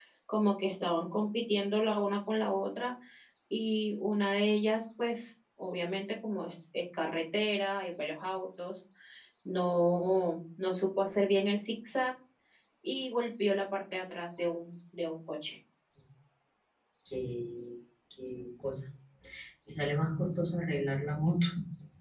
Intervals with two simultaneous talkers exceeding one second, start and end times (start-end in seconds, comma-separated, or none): none